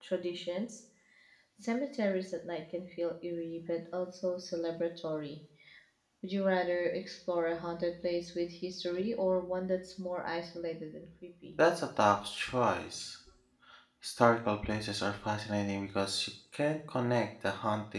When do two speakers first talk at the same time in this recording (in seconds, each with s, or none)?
none